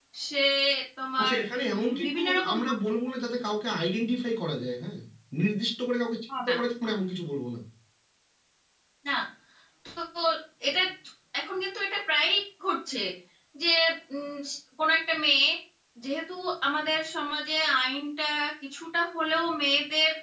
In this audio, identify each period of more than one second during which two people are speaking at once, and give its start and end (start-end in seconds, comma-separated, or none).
1.2-2.7